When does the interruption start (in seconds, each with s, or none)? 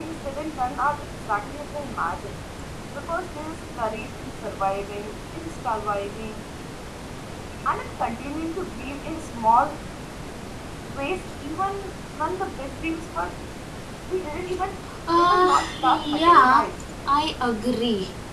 15.2 s